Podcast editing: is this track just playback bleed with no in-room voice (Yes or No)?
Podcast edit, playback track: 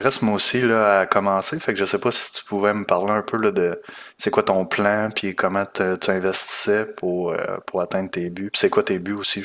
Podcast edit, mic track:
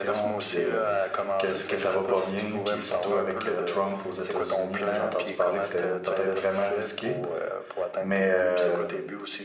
No